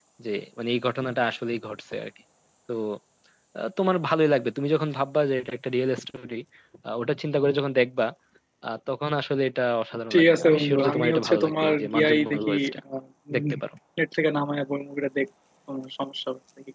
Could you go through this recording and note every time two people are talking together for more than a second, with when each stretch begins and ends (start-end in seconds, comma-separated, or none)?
10.1-12.5